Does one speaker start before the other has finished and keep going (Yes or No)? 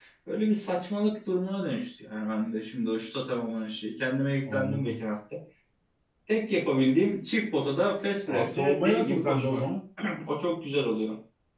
Yes